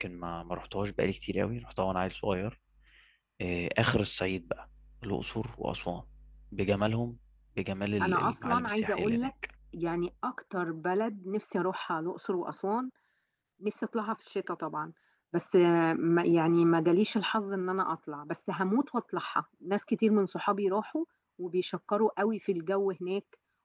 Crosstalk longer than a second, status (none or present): present